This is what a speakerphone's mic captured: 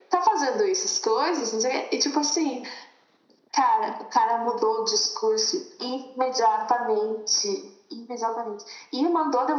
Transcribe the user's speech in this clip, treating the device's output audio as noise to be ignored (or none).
none